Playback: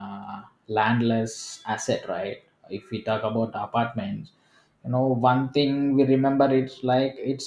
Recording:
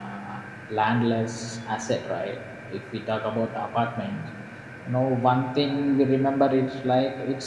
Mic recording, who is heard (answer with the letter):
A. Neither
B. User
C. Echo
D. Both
C